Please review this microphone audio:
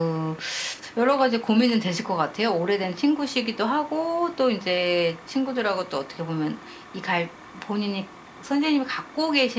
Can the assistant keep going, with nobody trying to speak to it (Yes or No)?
Yes